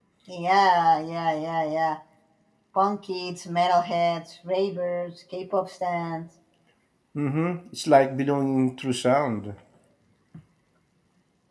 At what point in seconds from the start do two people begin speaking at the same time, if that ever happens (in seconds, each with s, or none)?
none